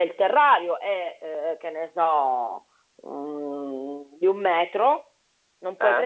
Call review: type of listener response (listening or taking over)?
listening